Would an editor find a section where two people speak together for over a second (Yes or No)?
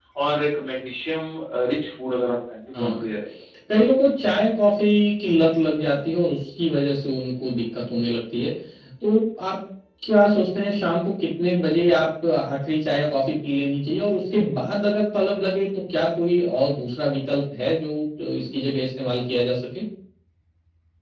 No